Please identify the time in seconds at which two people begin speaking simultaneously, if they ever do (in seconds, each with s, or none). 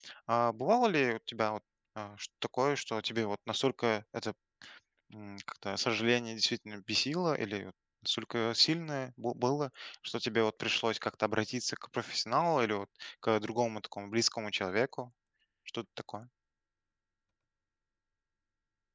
none